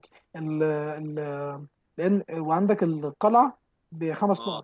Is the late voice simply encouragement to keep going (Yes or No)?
Yes